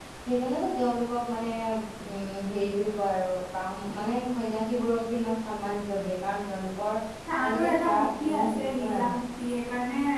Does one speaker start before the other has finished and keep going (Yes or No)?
Yes